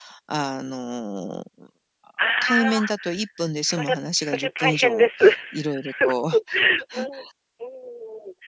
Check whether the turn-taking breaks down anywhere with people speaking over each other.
Yes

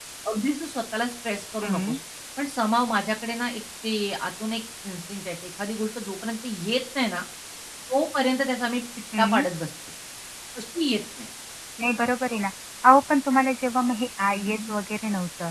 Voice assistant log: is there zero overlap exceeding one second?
Yes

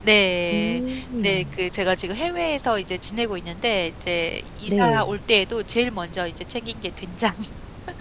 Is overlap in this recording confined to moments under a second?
Yes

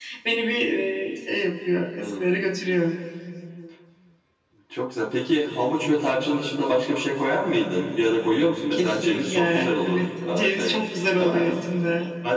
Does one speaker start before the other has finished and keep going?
Yes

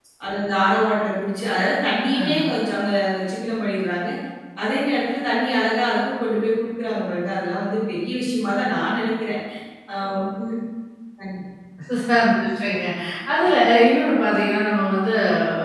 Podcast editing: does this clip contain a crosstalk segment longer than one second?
No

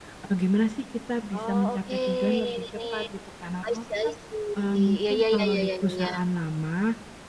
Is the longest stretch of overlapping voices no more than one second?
No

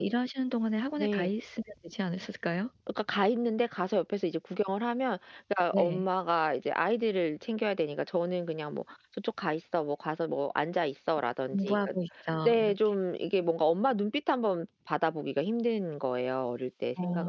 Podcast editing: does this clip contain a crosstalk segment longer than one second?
No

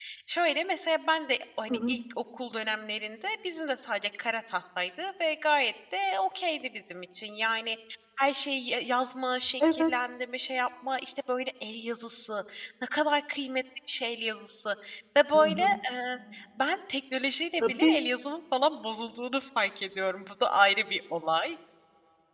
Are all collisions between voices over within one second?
Yes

